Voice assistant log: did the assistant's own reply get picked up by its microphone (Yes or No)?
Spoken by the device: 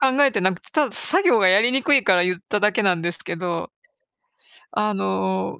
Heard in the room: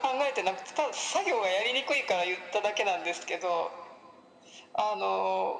Yes